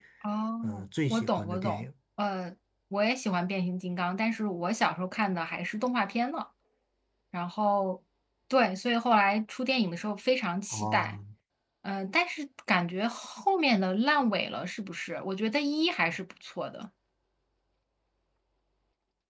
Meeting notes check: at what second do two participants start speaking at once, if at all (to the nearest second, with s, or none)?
1 s